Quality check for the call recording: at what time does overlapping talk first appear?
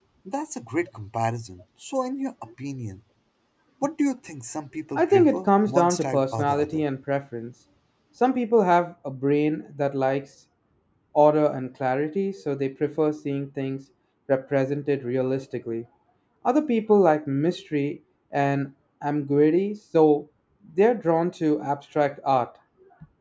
5.0 s

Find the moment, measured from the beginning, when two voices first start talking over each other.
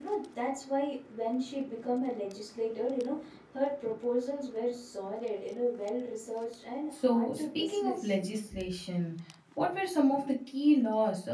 6.9 s

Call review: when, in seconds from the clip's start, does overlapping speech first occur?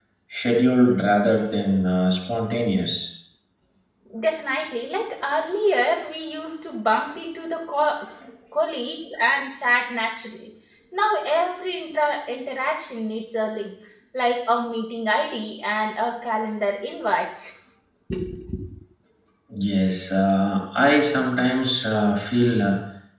none

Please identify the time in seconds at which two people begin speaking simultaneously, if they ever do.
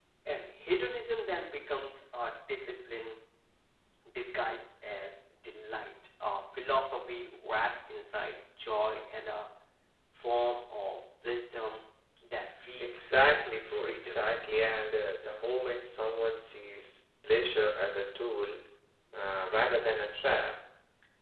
12.8 s

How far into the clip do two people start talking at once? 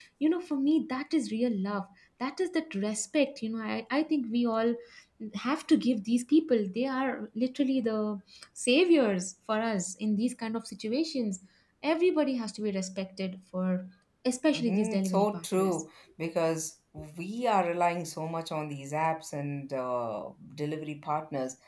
14.5 s

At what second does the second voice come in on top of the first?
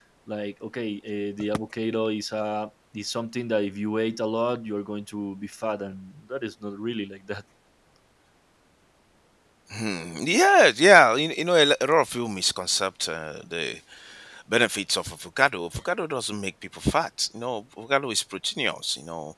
none

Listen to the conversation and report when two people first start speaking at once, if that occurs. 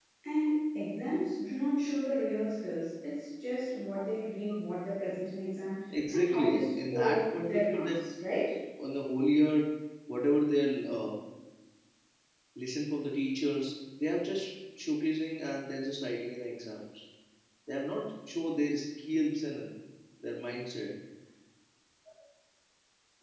5.9 s

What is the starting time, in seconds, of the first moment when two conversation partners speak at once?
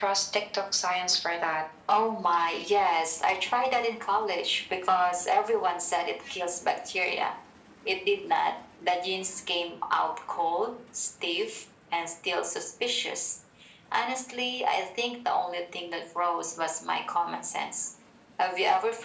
none

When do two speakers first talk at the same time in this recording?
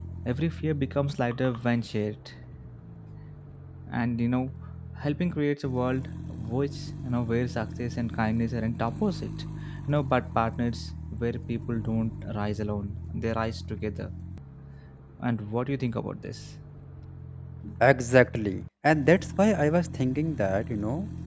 none

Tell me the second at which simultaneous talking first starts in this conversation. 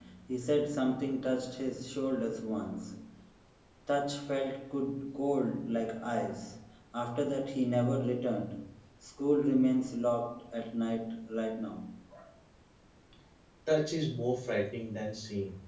none

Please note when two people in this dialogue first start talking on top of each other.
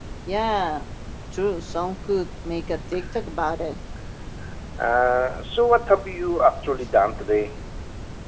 none

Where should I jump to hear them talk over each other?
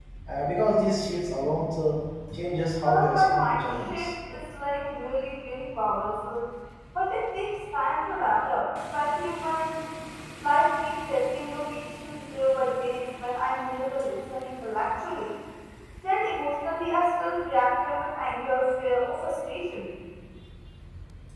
2.8 s

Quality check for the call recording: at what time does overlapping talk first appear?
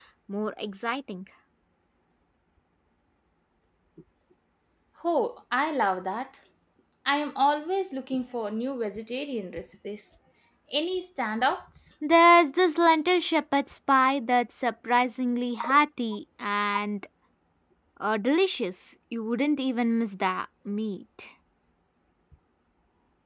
none

